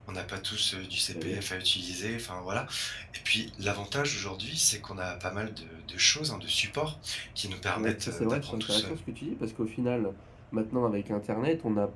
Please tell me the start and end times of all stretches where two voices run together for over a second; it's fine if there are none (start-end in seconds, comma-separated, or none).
7.7-9.0